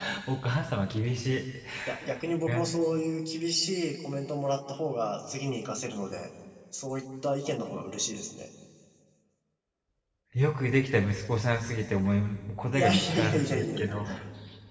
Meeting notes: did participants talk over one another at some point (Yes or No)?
Yes